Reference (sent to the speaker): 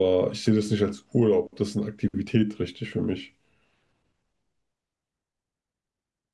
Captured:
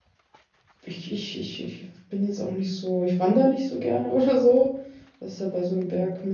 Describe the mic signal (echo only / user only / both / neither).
user only